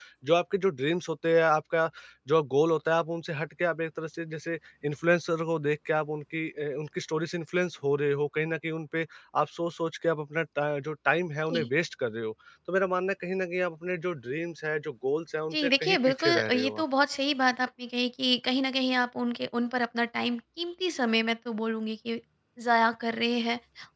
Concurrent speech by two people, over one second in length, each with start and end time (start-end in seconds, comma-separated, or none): 15.5-16.8